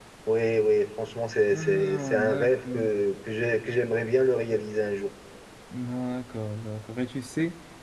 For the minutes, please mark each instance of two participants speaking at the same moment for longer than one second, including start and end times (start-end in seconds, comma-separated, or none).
1.6-2.9